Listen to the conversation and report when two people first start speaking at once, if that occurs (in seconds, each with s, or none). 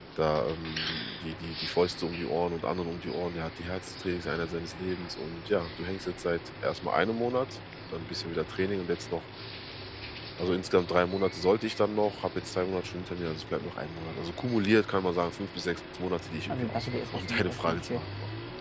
16.5 s